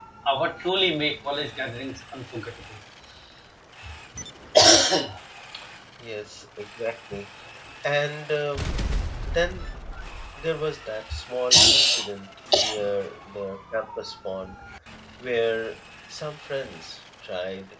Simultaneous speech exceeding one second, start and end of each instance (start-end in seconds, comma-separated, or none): none